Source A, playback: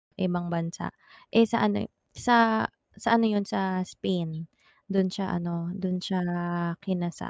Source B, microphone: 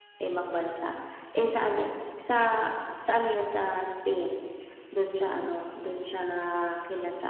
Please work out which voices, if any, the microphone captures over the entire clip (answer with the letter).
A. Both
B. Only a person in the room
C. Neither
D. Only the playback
D